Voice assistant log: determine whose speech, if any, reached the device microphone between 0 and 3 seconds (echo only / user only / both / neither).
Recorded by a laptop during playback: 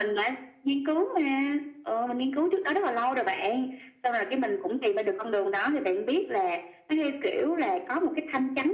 echo only